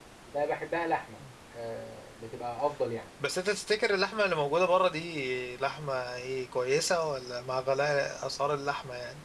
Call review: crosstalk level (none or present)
none